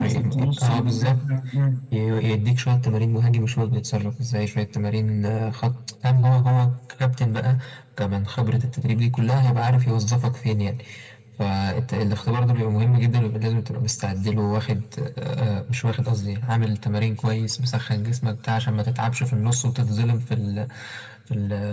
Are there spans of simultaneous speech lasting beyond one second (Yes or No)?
Yes